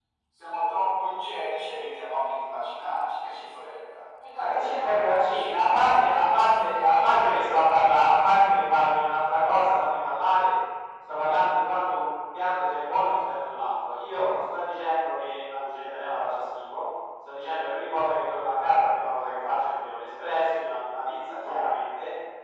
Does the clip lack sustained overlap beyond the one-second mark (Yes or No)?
No